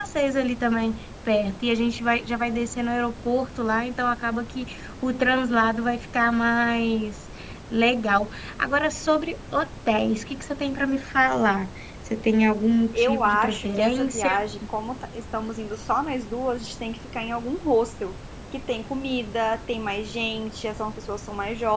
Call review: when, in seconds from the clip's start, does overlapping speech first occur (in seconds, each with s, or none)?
12.9 s